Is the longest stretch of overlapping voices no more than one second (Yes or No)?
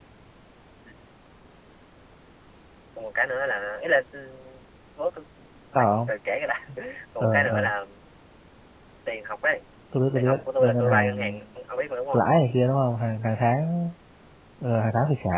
No